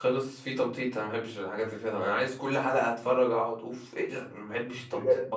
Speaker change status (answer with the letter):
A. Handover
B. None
A